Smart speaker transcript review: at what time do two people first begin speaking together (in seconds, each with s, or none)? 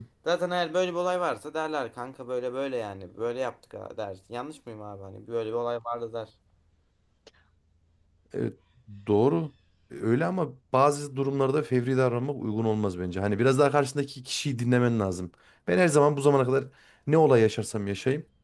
none